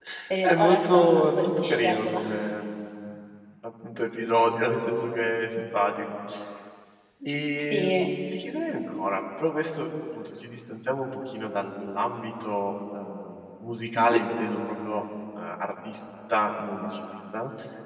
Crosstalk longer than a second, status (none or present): present